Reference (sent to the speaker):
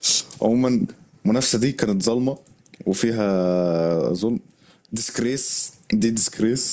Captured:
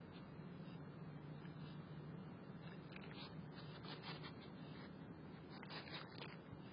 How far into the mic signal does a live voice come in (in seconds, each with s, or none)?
none